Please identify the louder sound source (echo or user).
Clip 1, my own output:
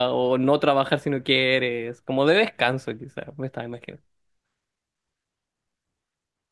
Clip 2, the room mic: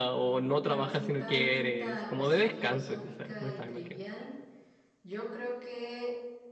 echo